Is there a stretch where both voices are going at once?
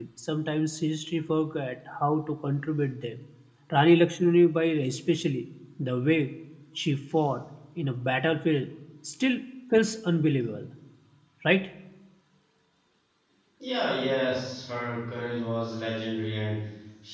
No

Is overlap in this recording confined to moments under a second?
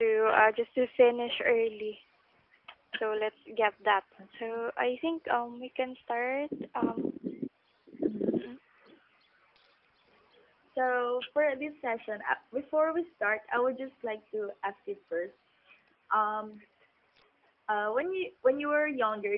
Yes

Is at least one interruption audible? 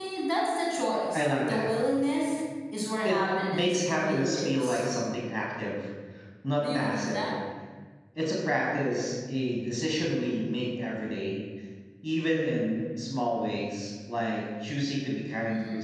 Yes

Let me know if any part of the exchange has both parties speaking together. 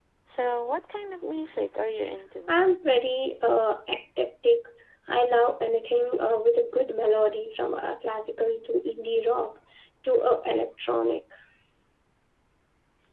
No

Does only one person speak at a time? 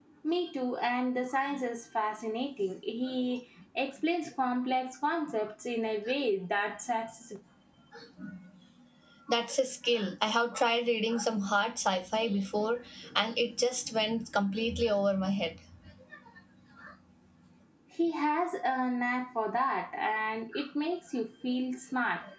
Yes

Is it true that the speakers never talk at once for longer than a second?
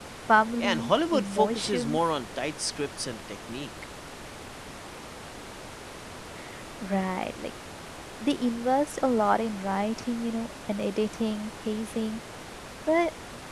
No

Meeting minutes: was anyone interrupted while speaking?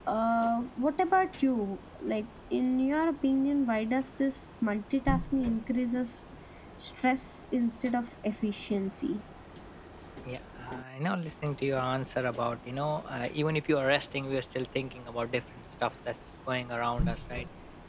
No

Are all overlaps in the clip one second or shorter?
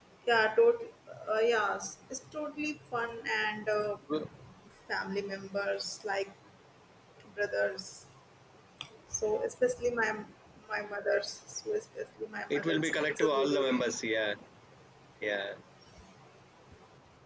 No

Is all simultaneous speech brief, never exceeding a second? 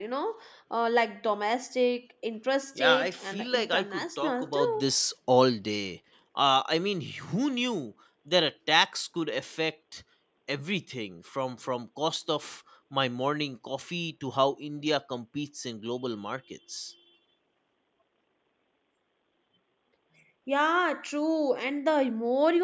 No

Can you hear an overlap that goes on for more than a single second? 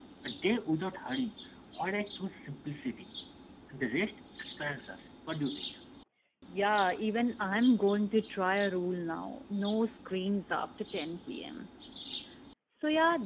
No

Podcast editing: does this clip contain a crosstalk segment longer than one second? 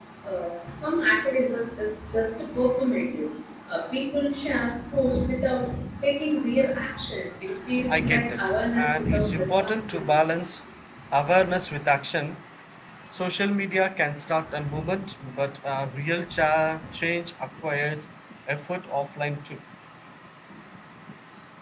Yes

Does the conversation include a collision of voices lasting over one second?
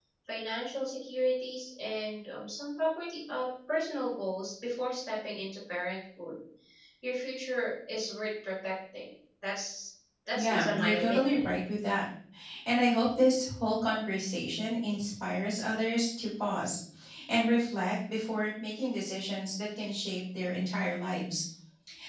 Yes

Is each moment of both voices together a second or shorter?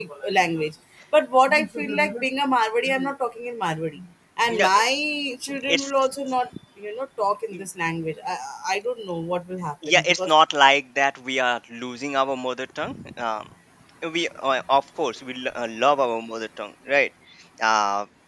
Yes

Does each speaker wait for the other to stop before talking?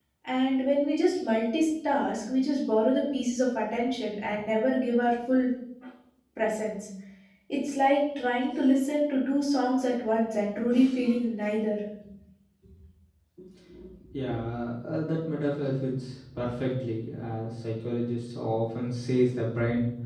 Yes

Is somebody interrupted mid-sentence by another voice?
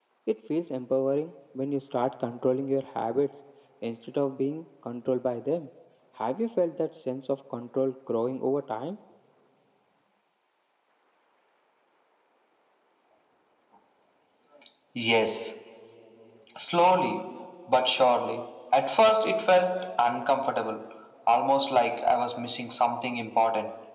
No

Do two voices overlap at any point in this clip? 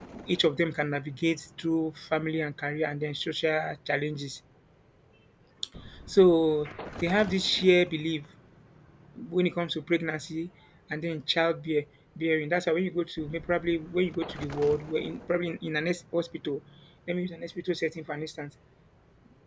No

